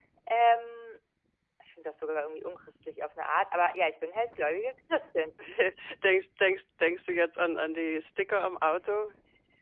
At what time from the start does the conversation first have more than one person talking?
none

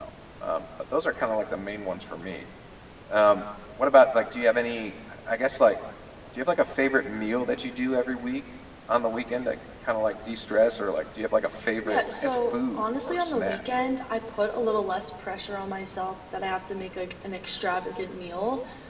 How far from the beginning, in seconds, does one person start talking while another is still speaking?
11.8 s

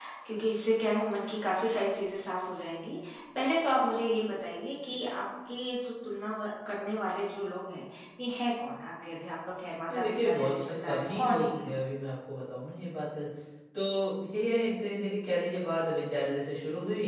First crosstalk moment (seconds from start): 9.9 s

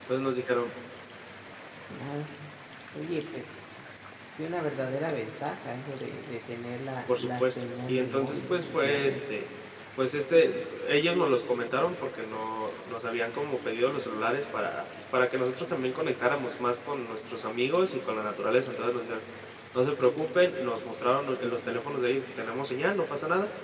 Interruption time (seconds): 7.1 s

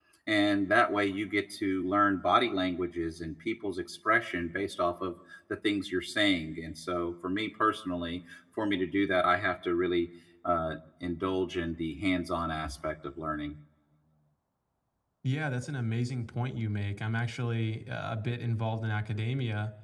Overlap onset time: none

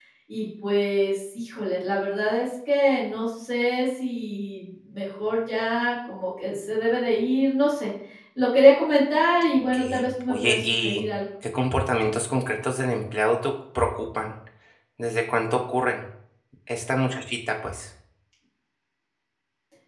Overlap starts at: 9.7 s

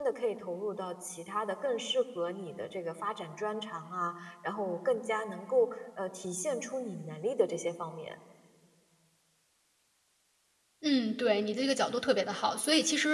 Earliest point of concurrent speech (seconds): none

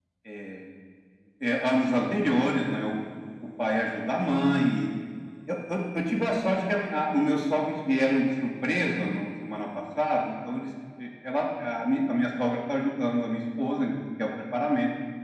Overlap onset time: none

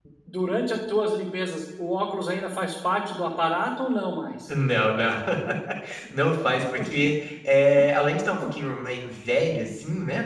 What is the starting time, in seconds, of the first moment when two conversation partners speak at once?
none

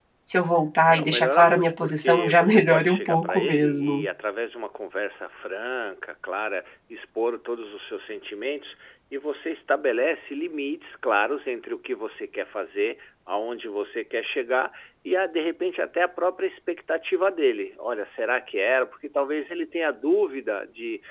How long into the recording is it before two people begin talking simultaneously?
0.9 s

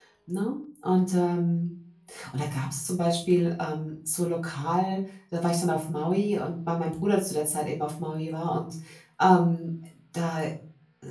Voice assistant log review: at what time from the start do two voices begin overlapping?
none

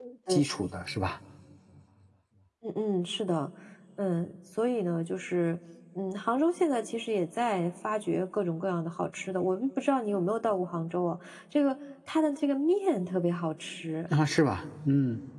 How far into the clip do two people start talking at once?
none

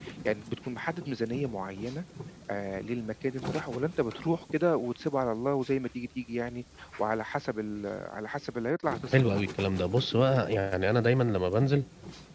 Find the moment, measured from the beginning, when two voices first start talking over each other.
none

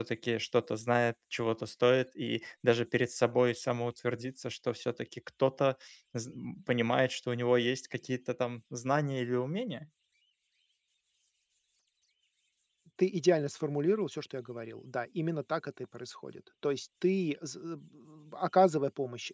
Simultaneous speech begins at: none

